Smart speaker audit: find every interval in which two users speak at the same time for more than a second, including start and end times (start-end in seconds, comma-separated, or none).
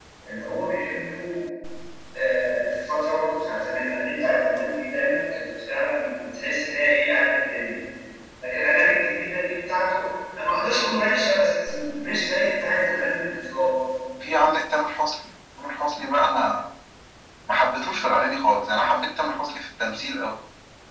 none